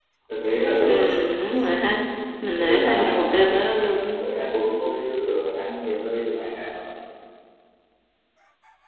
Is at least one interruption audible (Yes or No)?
Yes